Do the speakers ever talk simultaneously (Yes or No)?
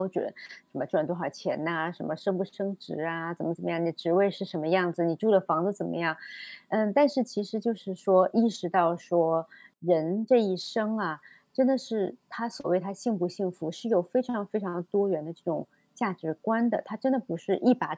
No